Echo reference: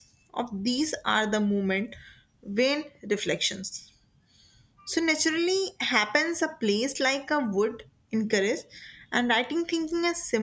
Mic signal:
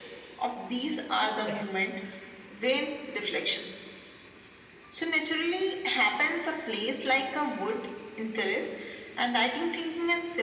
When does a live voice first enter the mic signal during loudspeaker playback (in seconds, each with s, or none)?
1.1 s